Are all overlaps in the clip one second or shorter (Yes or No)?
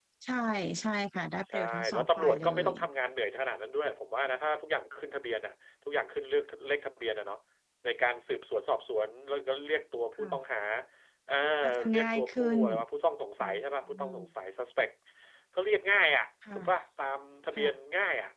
No